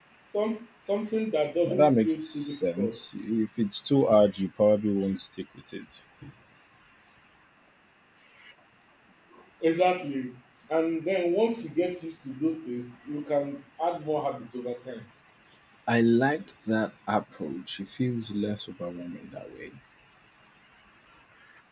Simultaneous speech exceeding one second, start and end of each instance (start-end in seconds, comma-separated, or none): 1.6-3.1